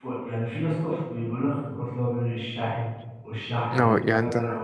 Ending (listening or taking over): taking over